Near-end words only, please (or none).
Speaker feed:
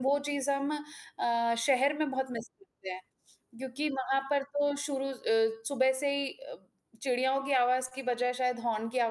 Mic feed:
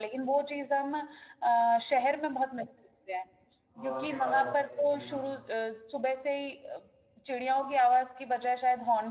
हॉर्न की आवाज़ आती है। जी हाँ।